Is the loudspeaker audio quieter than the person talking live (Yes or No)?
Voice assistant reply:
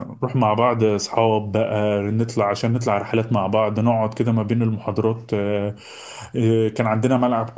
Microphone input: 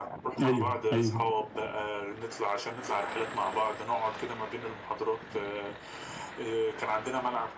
Yes